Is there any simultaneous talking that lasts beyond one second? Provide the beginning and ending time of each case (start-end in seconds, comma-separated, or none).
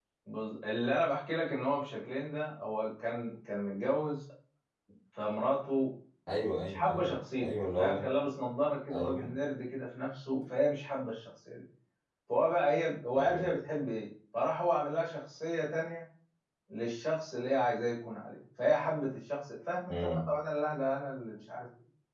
6.6-8.1